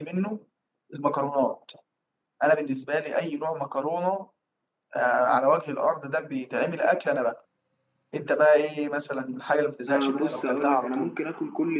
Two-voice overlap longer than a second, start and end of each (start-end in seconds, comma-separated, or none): 9.9-11.2